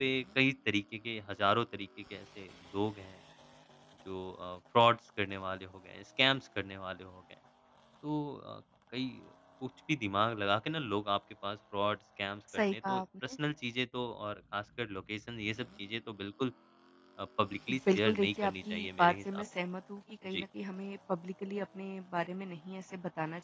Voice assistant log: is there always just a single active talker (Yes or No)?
No